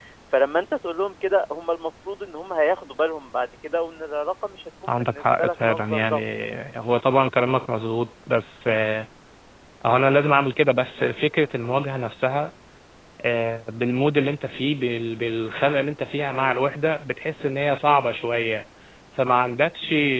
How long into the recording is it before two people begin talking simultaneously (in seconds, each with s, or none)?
4.9 s